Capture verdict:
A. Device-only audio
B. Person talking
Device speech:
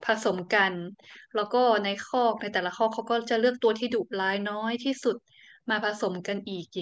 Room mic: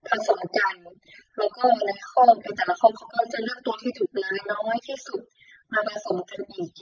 A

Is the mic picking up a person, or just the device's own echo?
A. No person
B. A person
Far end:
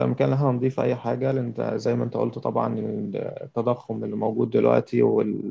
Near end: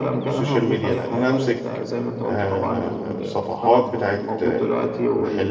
B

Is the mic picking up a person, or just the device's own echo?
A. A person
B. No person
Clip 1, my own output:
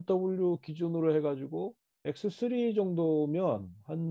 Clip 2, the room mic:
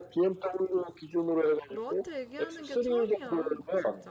A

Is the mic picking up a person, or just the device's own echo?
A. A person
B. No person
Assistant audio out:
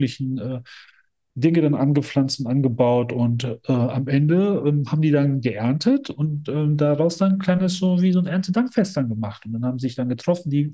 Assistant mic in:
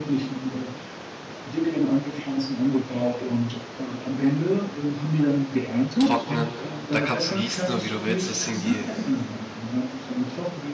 A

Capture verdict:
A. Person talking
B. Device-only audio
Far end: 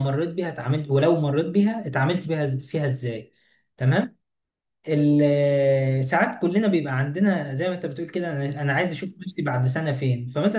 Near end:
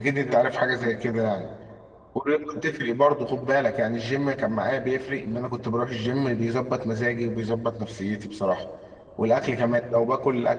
A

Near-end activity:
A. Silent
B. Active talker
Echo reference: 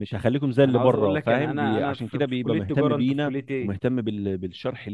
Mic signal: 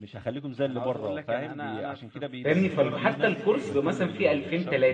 B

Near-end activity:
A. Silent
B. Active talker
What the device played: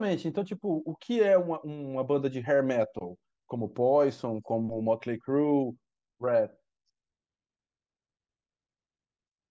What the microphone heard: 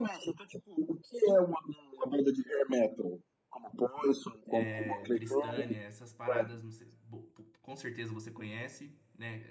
B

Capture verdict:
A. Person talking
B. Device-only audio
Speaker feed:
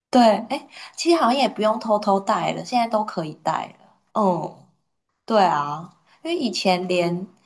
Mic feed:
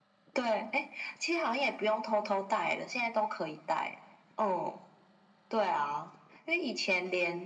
B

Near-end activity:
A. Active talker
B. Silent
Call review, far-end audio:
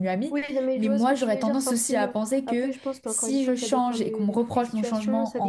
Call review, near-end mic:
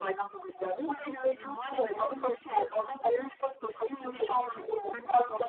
B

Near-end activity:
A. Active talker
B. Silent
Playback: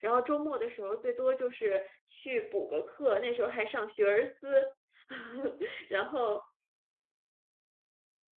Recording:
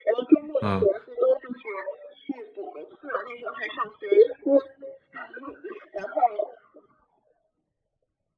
A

